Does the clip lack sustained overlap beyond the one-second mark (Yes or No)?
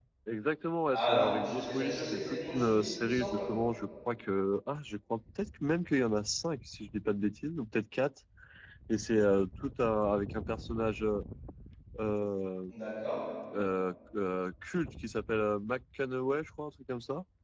No